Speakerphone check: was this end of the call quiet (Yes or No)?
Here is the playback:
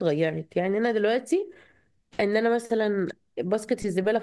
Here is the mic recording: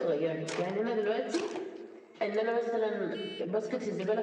Yes